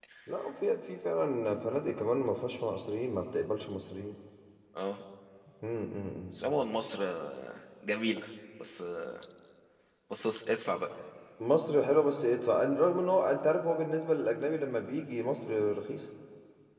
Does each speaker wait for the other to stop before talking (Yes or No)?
Yes